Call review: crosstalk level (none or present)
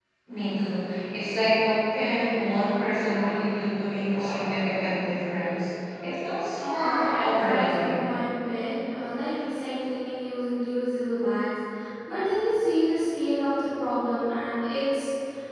present